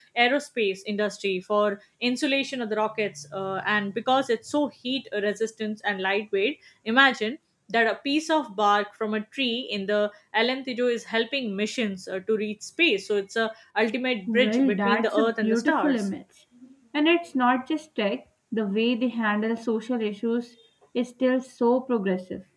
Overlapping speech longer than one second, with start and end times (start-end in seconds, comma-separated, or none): 14.3-16.0